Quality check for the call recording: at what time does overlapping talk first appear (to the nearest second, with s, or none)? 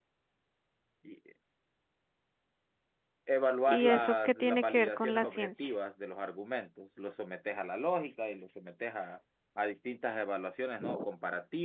4 s